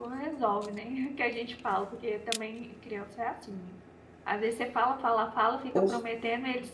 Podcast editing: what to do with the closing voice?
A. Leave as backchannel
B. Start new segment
A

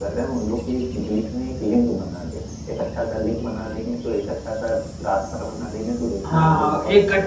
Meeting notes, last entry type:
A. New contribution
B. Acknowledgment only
A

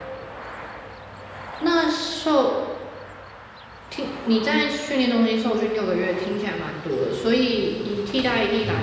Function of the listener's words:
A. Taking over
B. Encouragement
B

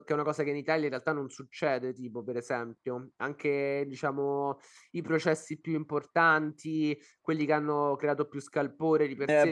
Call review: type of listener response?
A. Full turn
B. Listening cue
A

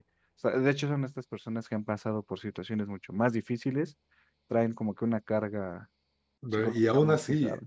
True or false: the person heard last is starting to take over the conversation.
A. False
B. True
B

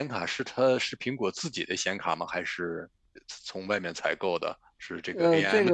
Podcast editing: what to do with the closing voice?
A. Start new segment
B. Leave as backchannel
A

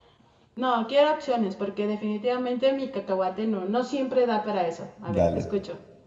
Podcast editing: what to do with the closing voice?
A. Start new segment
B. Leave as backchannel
A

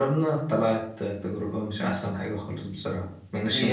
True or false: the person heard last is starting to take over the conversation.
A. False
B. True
B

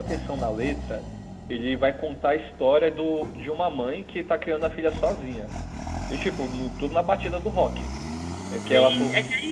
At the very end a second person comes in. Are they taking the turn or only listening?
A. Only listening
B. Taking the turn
B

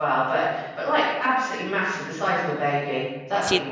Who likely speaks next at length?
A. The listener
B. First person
A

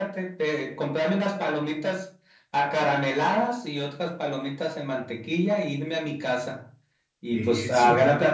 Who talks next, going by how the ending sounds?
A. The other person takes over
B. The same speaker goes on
B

